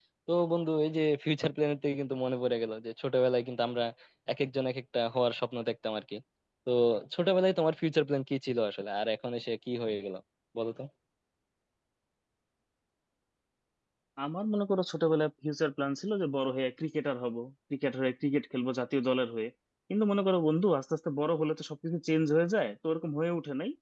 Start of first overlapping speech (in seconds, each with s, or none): none